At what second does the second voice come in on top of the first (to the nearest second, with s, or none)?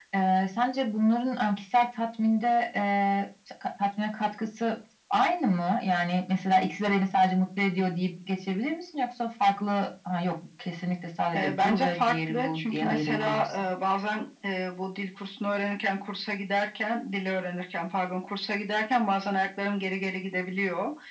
11 s